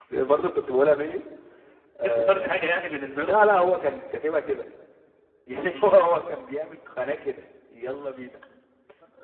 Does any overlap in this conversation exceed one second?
No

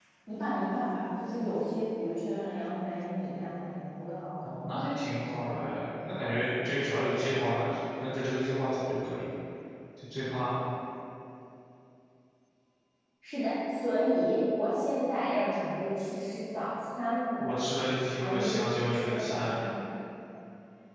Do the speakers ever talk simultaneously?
Yes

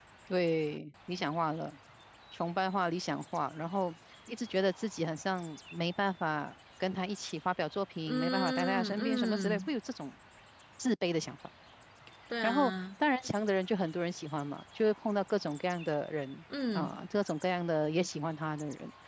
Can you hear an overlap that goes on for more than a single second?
Yes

